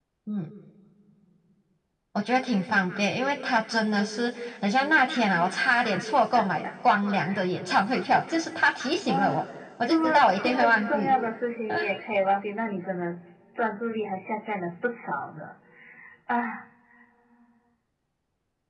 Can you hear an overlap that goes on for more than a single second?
Yes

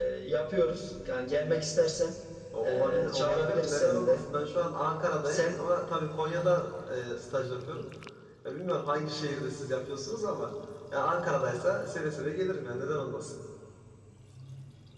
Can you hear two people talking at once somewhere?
Yes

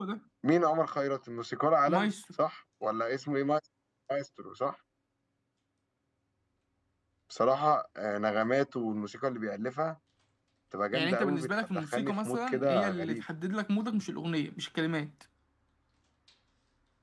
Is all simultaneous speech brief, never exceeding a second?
No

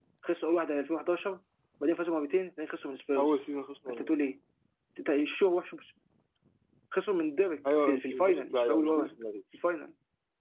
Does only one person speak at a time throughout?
No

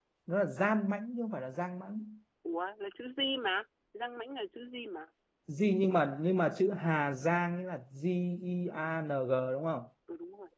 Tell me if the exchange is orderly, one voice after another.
Yes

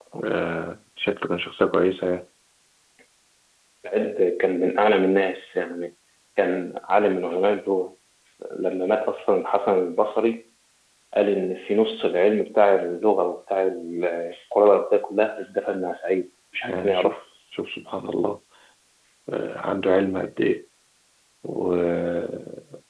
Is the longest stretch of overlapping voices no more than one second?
Yes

